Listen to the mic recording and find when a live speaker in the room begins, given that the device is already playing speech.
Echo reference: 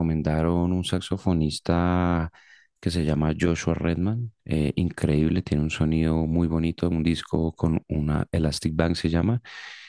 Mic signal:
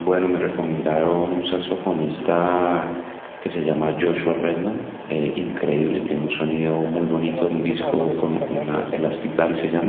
7 s

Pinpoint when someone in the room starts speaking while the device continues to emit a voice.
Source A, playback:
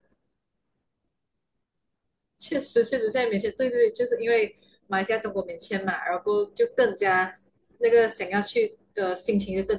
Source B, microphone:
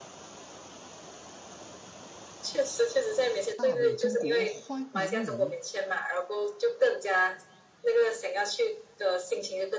3 s

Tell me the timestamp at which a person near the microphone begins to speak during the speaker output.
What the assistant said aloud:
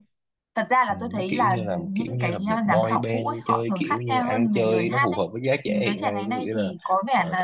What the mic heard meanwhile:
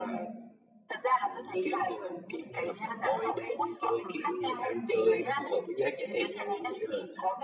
none

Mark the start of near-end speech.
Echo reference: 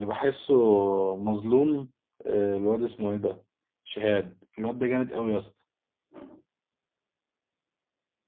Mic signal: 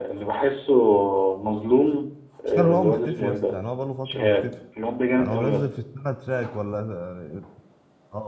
2 s

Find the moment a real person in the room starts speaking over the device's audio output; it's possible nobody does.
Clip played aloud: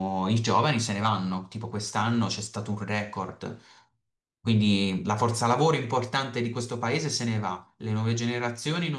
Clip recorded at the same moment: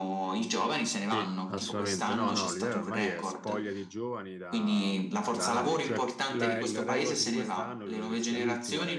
1 s

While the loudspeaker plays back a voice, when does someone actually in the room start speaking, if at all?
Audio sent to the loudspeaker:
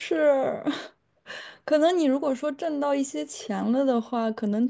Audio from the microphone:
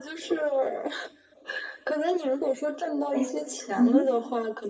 3 s

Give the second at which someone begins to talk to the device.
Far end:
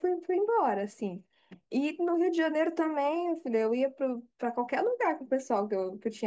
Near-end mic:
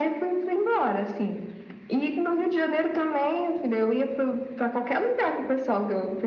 none

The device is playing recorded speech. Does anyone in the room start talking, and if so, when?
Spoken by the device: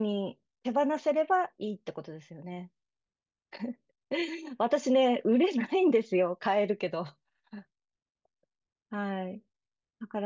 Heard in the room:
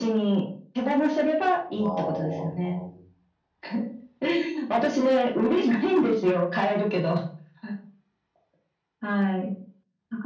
2 s

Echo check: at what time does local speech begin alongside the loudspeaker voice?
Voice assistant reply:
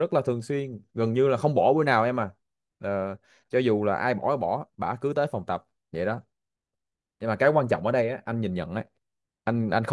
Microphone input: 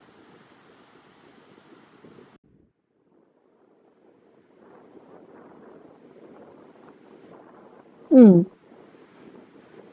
8 s

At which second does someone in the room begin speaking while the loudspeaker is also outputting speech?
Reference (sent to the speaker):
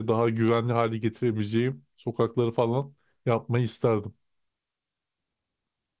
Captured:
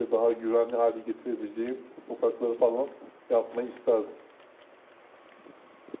none

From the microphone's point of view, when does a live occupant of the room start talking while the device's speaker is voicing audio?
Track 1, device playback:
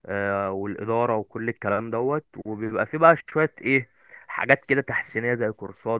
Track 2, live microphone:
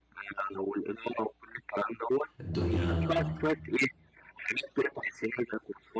2 s

